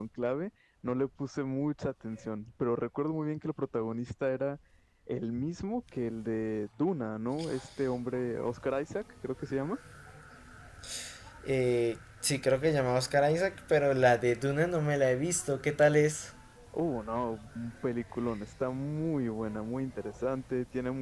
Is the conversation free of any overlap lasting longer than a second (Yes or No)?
Yes